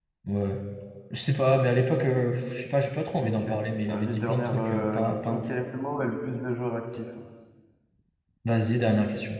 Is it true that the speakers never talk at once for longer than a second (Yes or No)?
No